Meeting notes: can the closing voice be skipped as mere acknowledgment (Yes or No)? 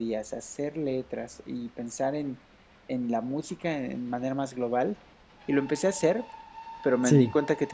Yes